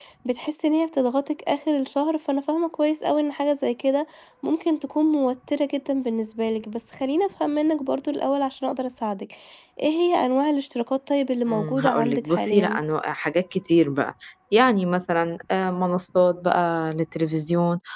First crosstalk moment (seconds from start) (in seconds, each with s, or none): 11.5 s